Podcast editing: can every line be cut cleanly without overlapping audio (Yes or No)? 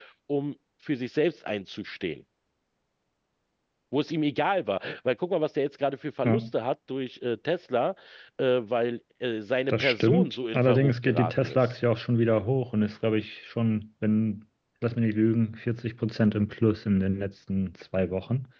No